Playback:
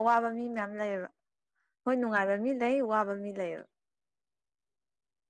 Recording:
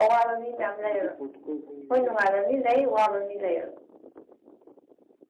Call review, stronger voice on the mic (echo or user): echo